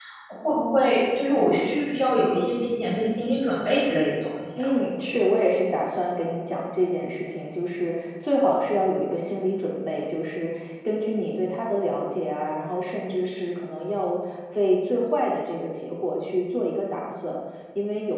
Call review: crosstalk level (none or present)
none